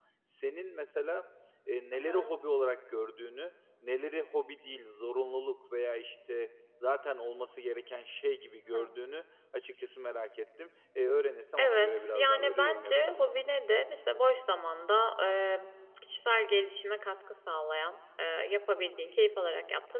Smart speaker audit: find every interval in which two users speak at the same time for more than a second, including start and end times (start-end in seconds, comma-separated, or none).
11.6-13.2